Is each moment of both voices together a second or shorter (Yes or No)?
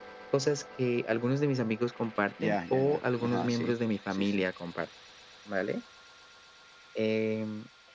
No